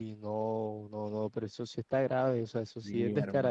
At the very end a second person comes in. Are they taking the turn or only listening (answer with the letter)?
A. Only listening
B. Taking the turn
B